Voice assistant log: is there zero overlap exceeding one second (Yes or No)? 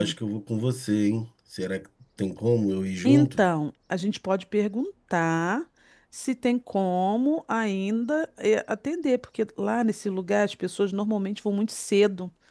Yes